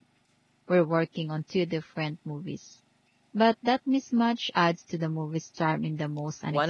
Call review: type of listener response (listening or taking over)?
taking over